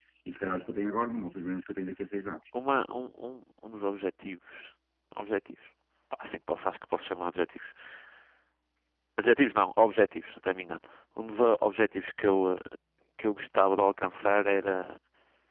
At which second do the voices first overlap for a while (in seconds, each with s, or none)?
none